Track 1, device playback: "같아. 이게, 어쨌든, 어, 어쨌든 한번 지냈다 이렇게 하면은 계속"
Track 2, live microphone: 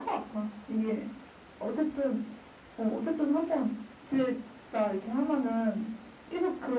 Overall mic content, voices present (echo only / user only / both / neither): echo only